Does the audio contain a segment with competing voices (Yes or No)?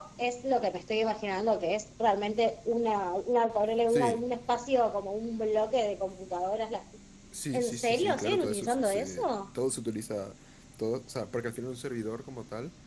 Yes